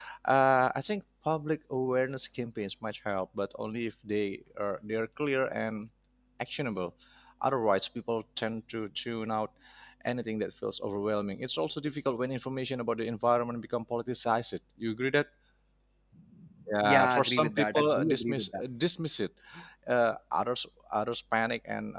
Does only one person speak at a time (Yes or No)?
No